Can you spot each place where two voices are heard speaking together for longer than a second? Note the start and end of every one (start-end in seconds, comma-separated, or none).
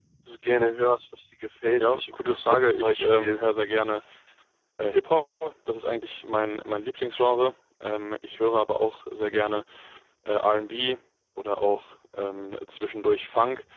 1.8-3.4